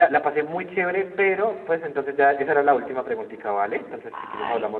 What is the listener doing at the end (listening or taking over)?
taking over